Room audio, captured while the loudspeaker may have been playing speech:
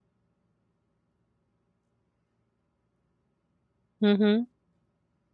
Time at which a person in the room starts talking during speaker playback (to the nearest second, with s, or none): 4 s